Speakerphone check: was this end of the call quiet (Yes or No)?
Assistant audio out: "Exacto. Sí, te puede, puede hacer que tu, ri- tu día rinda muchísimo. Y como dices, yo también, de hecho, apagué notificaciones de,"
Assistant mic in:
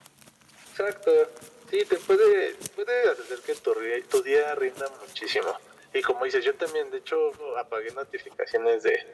Yes